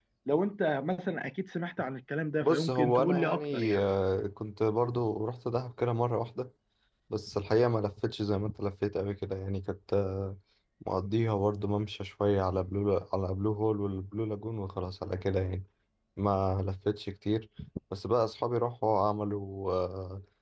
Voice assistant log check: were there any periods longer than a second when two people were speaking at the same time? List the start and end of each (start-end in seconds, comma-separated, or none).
2.4-3.8